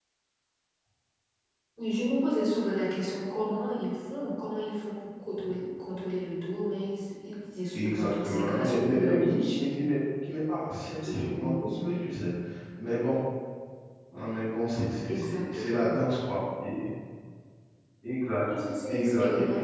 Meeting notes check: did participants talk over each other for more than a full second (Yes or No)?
Yes